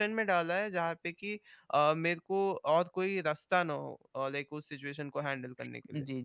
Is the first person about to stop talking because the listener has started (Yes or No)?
Yes